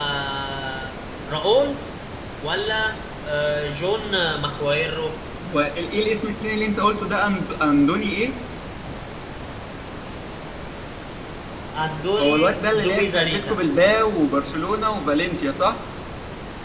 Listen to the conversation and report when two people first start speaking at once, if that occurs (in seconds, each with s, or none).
12.2 s